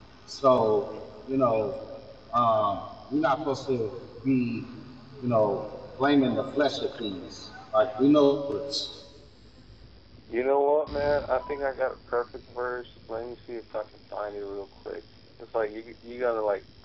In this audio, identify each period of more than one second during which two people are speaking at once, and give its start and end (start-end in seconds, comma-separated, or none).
none